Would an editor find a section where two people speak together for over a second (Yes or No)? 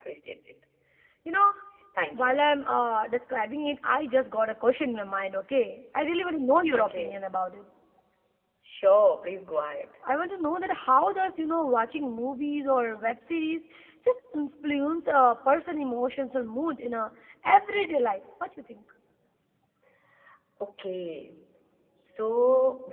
No